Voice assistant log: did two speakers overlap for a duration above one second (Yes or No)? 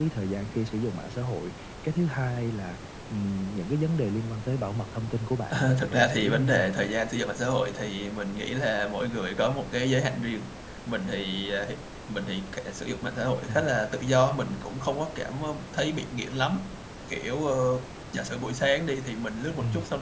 Yes